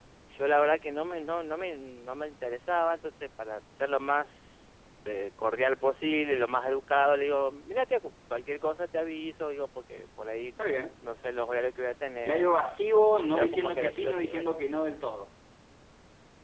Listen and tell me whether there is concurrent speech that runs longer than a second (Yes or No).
Yes